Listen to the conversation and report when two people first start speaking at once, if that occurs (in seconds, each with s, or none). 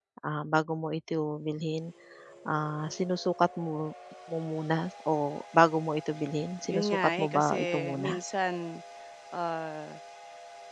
6.7 s